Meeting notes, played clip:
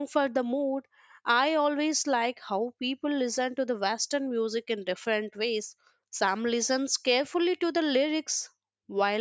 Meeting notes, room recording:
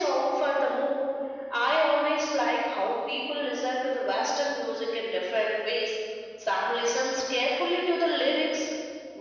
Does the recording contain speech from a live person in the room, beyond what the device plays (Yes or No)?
No